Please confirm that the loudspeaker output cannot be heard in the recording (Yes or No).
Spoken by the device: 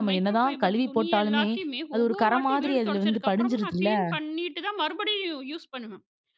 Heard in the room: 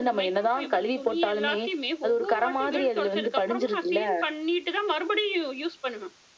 No